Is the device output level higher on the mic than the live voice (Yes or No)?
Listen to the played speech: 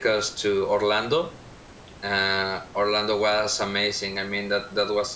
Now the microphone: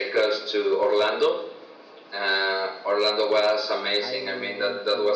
Yes